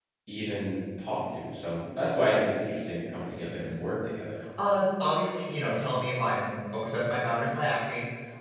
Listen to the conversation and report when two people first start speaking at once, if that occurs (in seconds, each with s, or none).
none